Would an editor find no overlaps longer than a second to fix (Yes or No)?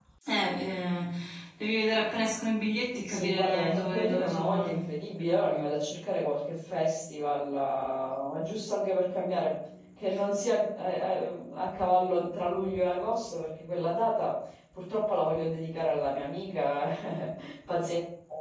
No